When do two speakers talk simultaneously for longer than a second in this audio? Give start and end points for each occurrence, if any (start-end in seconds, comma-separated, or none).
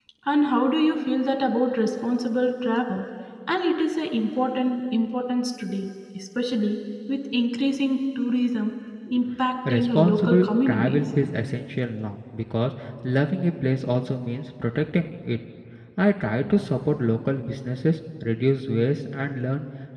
9.7-11.0